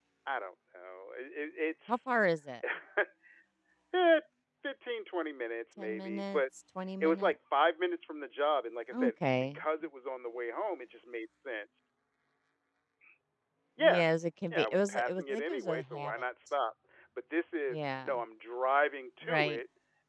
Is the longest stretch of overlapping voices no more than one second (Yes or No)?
No